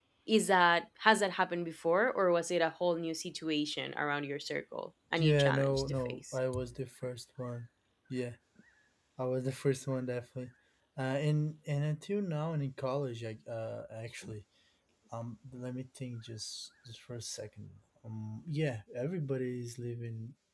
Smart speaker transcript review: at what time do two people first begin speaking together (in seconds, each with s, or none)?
5.2 s